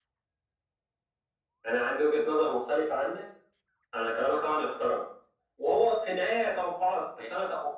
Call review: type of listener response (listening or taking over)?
listening